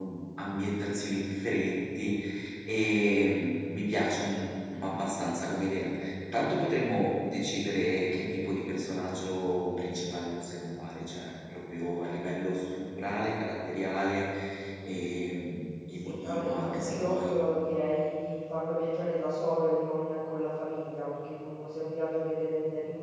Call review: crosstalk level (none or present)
present